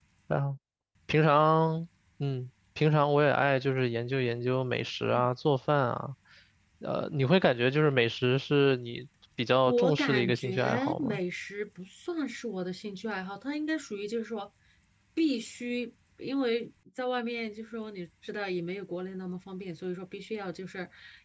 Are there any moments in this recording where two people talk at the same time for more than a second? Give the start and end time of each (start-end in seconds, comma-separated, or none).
9.7-11.2